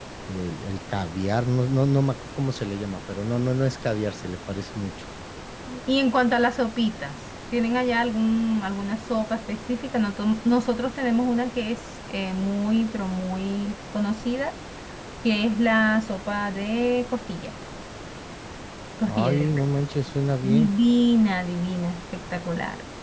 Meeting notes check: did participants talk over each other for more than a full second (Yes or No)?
No